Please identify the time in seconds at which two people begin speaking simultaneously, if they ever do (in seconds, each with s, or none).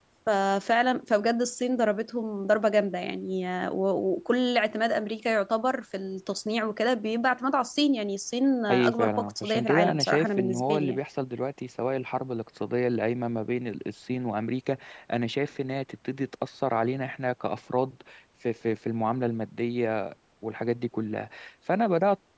8.7 s